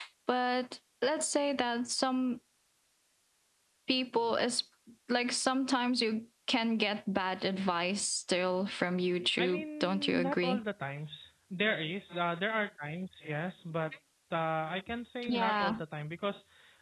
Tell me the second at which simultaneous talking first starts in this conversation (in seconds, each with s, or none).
9.4 s